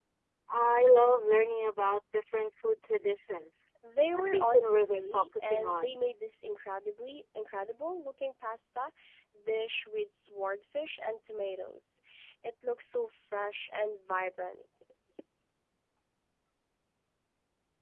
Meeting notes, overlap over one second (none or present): present